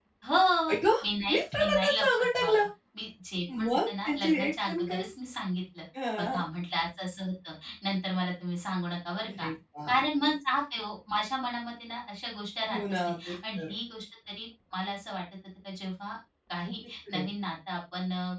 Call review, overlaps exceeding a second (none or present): present